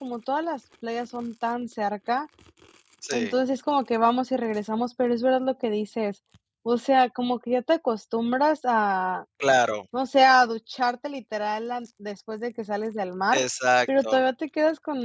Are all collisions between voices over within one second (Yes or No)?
Yes